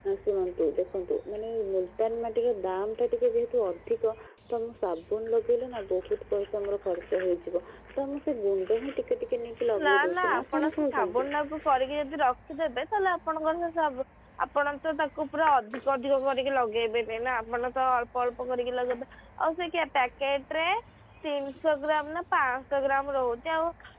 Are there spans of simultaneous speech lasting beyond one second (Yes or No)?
Yes